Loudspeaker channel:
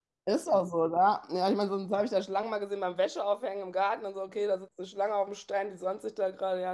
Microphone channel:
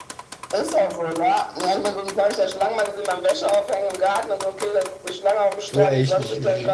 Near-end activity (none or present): present